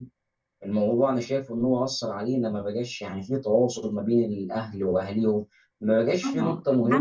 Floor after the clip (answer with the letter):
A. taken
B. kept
A